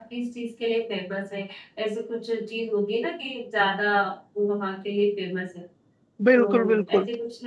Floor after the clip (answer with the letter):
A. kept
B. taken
B